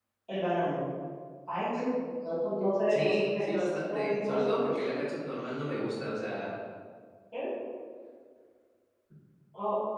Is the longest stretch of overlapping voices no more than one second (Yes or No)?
No